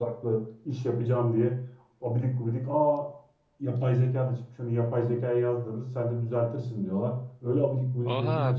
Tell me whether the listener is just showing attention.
No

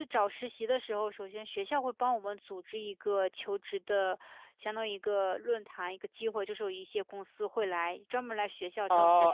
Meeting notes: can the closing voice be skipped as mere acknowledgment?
No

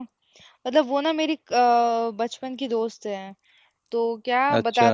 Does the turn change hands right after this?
No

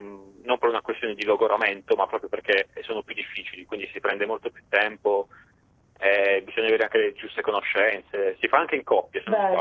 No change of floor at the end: Yes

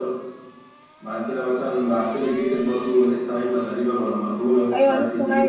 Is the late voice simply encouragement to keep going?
No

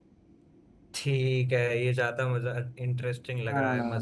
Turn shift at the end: Yes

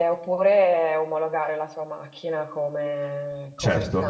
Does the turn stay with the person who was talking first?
Yes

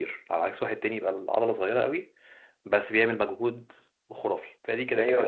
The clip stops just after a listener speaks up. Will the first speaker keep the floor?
No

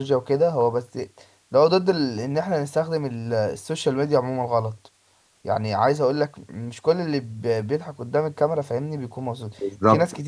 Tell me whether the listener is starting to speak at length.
No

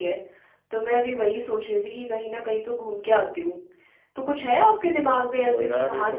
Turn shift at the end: Yes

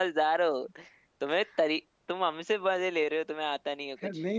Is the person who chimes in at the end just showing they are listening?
No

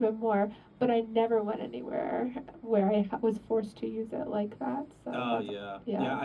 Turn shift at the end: Yes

